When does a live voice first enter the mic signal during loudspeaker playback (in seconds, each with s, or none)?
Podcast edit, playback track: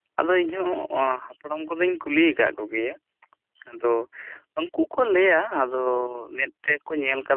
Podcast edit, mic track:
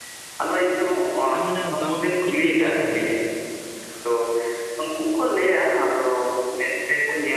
1.3 s